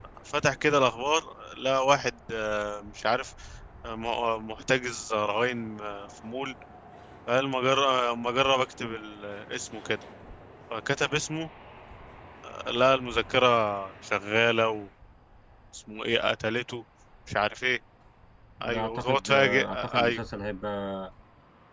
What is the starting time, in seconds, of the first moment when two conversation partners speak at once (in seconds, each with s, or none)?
18.6 s